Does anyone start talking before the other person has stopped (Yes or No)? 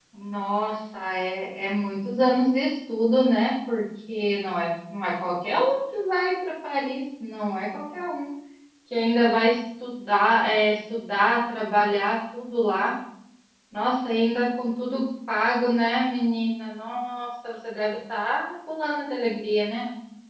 No